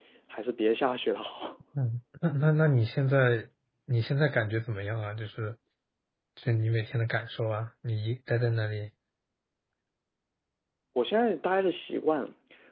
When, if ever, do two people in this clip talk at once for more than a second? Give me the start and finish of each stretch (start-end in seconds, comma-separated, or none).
none